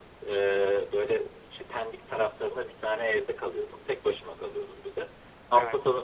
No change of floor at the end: Yes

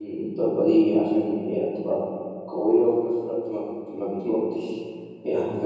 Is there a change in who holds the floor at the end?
No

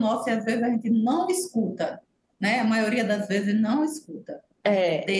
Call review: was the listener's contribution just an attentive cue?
Yes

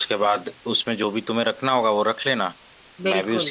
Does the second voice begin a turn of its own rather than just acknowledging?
No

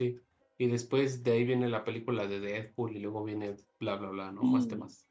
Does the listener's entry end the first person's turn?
Yes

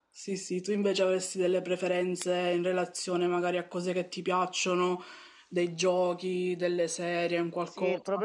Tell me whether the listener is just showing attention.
No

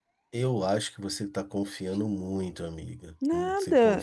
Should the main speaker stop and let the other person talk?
Yes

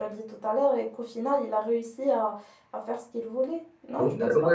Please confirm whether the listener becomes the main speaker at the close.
Yes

